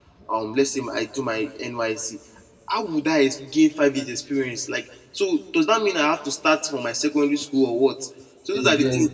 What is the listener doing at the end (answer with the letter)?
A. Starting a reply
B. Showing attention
B